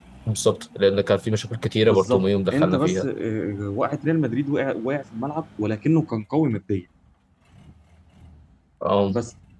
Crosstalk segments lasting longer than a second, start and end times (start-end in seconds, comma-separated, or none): 1.9-3.1